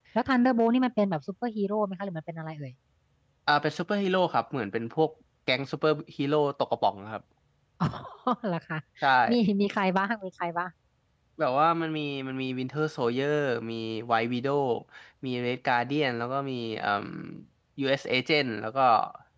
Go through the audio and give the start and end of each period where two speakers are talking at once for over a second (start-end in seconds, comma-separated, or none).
none